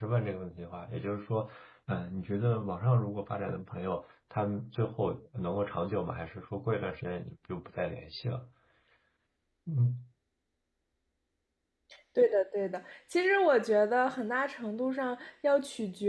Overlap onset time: none

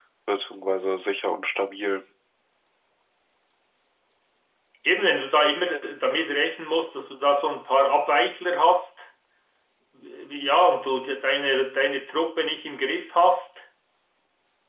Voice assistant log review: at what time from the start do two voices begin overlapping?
none

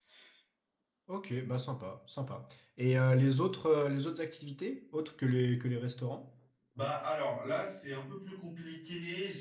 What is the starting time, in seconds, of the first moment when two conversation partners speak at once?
none

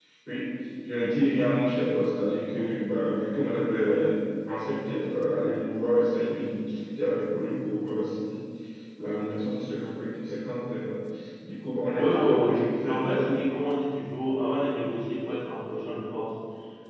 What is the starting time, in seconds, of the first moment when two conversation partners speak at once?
11.9 s

